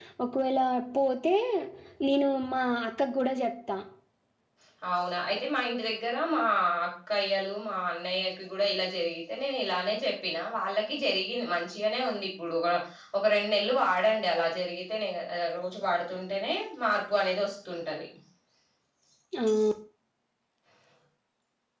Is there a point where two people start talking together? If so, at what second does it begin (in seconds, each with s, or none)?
none